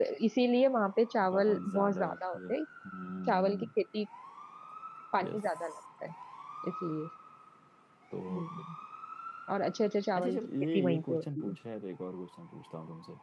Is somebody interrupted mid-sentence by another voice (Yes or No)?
Yes